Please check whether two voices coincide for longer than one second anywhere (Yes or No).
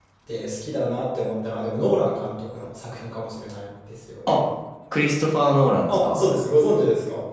No